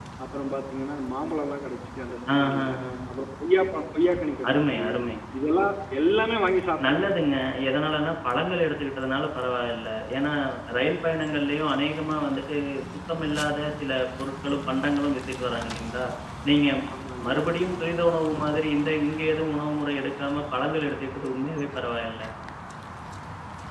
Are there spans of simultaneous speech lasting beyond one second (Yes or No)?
No